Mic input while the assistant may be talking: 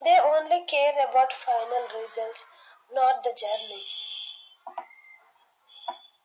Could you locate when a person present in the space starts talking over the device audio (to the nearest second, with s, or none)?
none